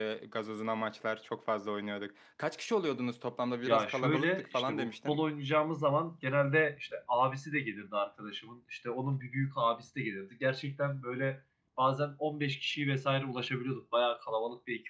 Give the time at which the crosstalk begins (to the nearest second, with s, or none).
4 s